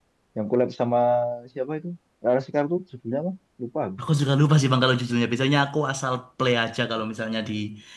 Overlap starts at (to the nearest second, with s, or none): none